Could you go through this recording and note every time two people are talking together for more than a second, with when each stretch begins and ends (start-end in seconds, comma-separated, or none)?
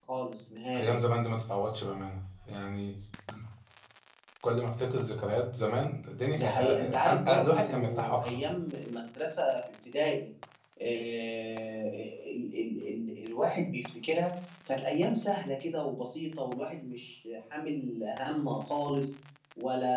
6.3-8.4